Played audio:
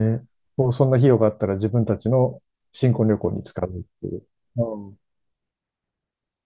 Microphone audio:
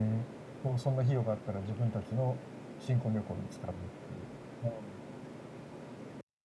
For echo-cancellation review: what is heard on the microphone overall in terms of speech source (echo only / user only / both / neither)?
echo only